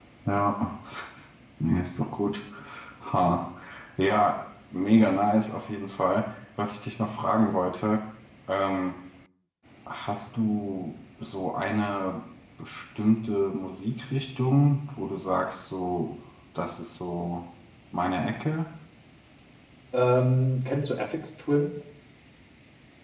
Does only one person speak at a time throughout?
Yes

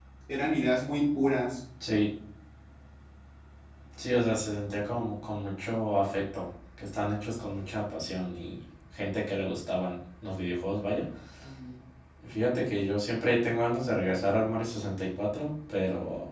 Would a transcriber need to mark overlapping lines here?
No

